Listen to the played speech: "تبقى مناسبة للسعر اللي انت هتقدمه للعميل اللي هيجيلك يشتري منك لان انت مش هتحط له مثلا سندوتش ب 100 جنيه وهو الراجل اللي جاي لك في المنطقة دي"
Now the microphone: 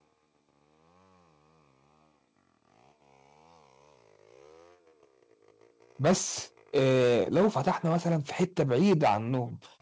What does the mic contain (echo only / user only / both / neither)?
user only